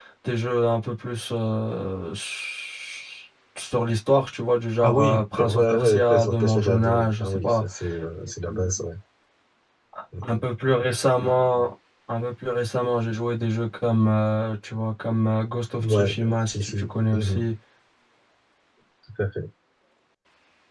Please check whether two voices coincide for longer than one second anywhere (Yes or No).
Yes